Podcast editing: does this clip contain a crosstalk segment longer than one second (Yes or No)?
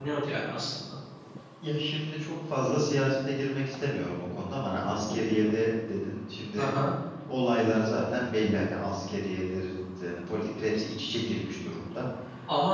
No